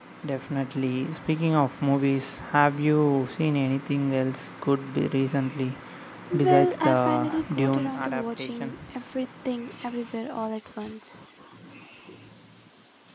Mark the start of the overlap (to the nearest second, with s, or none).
6 s